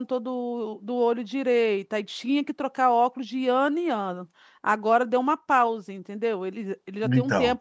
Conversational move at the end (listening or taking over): listening